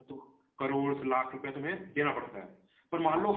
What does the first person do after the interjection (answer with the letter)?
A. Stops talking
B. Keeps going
B